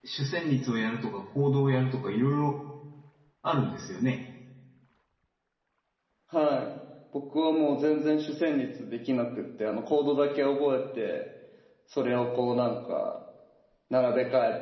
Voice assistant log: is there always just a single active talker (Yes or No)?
Yes